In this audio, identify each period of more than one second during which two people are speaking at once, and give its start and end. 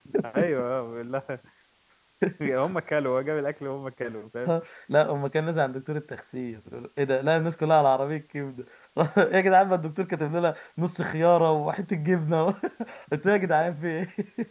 none

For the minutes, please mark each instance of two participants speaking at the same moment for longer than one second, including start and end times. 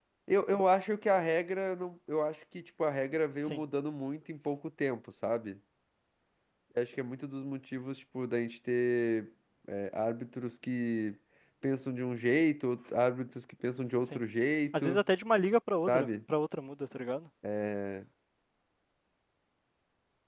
none

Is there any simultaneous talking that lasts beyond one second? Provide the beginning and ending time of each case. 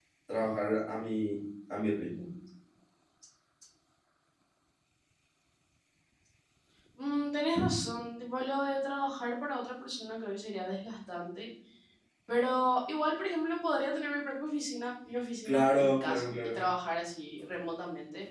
15.4-16.6

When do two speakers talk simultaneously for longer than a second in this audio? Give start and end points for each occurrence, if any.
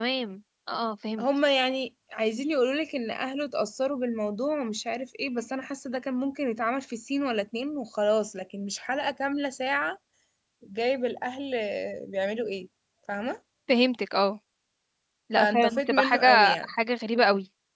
15.4-16.7

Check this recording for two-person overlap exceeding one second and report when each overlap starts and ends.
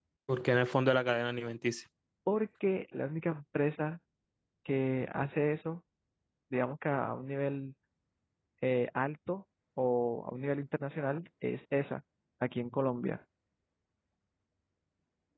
none

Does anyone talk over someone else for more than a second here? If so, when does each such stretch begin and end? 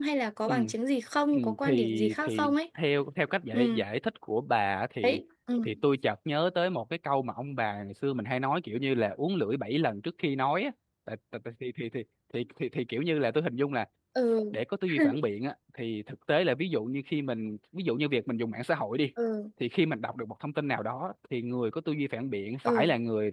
1.3-2.5

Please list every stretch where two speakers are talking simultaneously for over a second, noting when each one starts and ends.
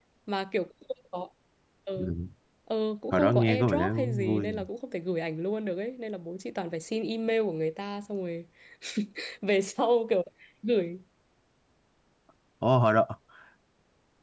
3.1-4.5

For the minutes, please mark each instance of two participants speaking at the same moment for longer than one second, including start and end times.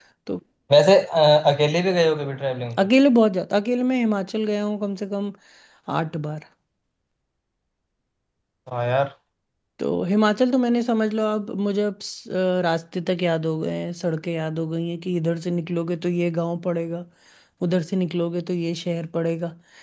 none

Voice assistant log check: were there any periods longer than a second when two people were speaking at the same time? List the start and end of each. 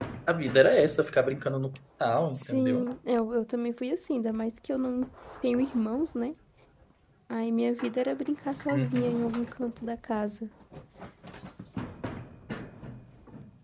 none

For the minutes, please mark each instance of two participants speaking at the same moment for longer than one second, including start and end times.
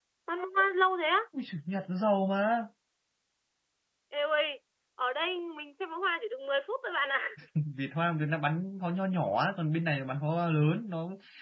none

